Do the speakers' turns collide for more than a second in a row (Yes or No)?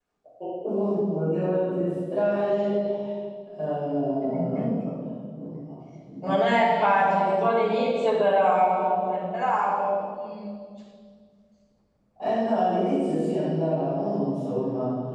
No